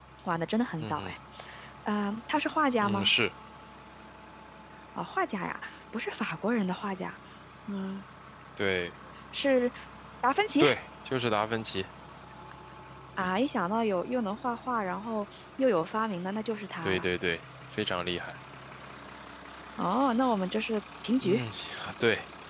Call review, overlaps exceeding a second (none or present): none